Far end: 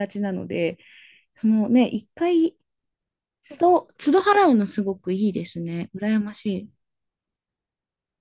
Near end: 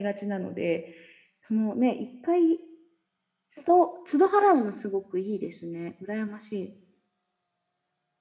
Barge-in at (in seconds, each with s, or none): none